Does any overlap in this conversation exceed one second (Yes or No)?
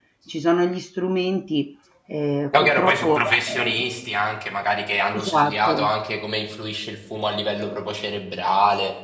Yes